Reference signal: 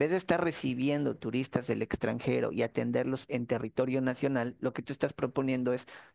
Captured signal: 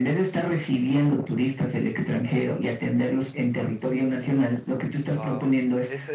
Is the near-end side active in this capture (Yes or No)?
Yes